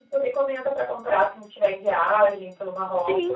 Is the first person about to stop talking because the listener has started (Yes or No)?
Yes